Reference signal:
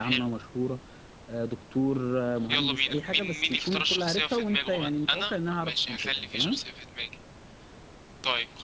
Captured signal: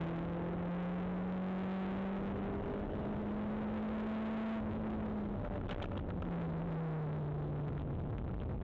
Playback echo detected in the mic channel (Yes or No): No